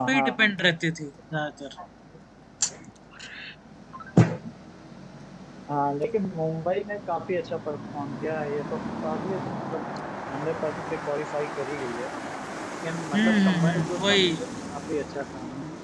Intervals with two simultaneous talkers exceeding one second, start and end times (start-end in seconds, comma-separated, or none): 13.1-14.4